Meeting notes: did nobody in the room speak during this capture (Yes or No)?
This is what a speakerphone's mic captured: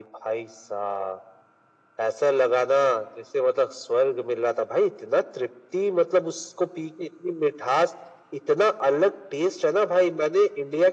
Yes